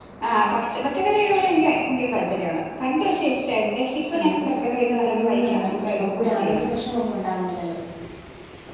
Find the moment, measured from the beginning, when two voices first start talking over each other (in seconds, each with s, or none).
4.1 s